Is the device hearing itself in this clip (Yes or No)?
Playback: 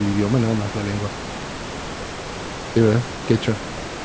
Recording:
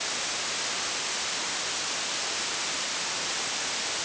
No